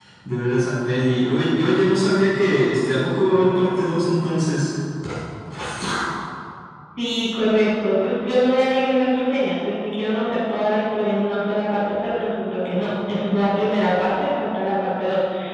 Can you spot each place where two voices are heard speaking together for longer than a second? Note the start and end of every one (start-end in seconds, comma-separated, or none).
none